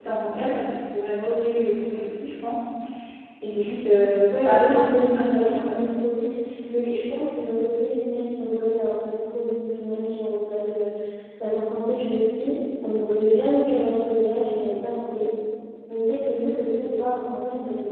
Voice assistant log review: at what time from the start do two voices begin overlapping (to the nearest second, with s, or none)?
4 s